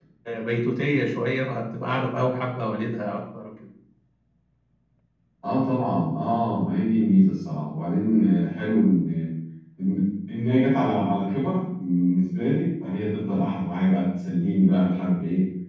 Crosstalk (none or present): none